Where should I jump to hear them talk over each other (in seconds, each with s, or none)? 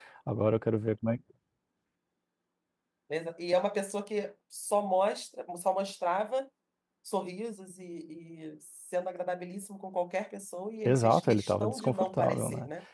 10.8 s